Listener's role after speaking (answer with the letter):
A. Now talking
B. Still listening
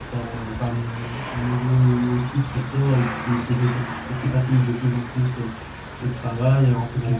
B